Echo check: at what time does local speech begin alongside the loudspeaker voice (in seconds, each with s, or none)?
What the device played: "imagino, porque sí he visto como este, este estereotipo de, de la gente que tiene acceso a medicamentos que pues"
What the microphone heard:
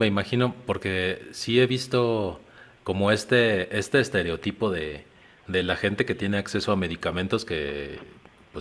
none